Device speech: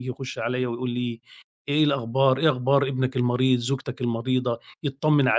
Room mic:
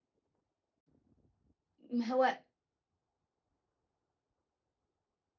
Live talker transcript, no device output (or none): ما هو